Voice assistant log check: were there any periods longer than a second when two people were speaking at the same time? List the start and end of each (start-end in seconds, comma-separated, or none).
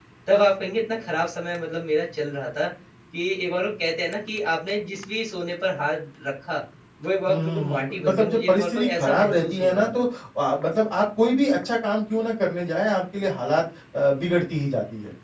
7.3-9.9